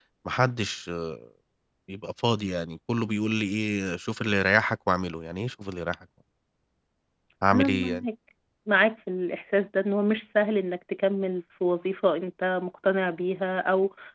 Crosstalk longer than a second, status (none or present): none